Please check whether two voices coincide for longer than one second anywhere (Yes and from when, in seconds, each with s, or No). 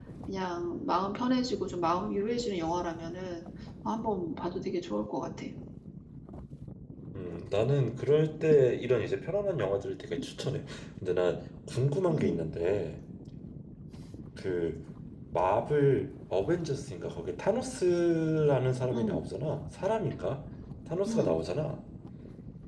No